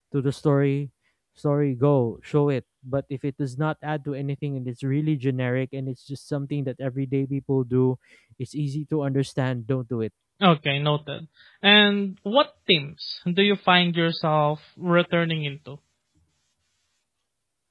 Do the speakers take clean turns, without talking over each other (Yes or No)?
Yes